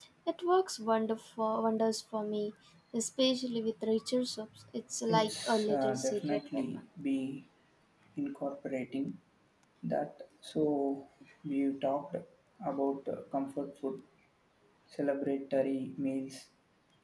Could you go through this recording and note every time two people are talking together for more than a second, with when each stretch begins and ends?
5.1-6.6

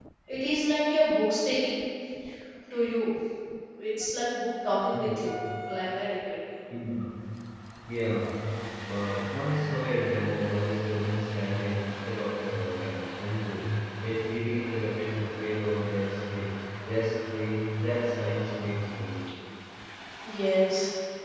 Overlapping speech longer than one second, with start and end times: none

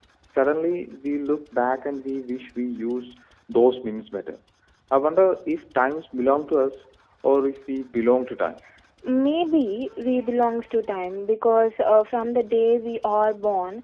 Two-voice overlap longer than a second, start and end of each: none

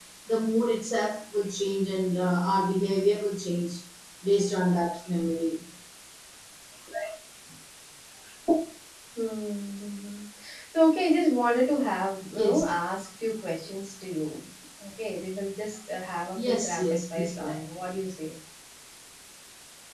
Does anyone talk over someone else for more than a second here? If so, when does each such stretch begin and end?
16.4-17.6

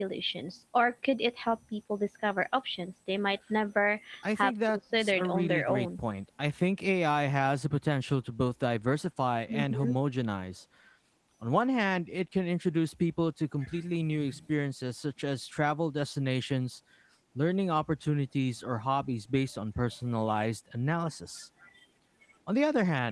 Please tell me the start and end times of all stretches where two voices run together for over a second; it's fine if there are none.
4.4-5.9

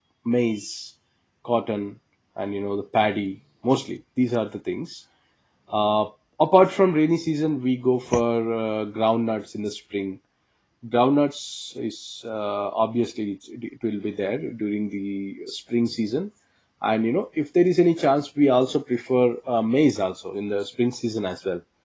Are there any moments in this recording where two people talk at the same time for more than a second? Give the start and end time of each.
none

